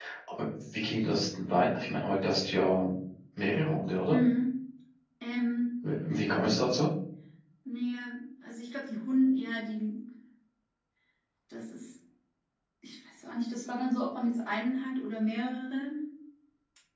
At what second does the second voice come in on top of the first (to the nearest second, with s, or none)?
none